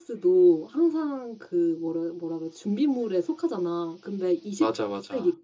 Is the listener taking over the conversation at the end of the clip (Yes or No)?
No